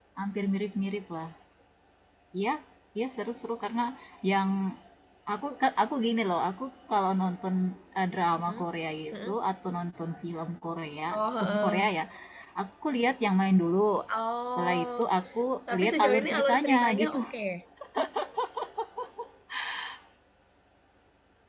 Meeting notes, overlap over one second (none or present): present